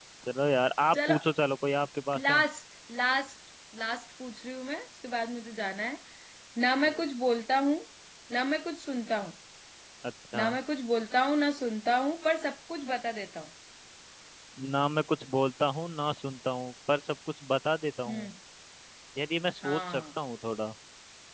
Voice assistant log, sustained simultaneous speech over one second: none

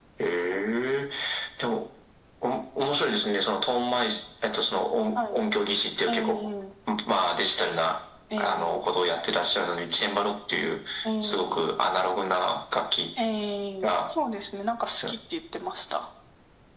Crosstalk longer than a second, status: none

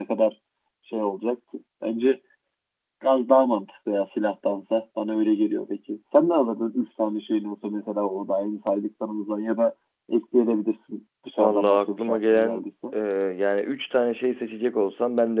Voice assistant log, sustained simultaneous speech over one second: present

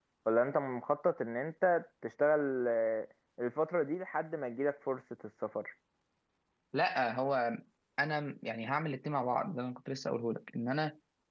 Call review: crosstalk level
none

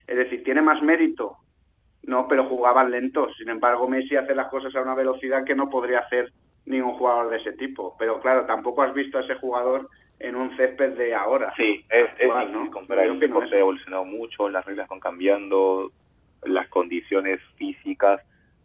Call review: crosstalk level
present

